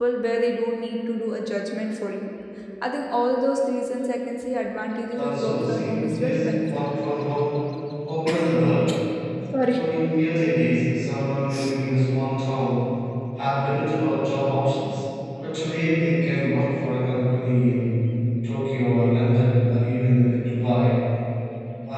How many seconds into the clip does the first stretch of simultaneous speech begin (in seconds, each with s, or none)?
5.2 s